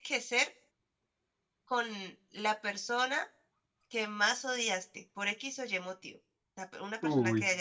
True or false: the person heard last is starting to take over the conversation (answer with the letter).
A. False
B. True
A